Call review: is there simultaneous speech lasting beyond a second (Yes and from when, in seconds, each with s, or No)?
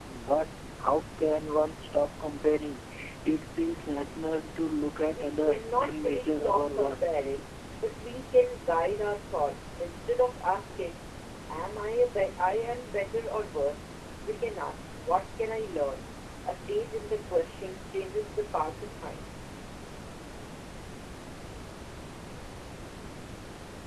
Yes, from 5.2 s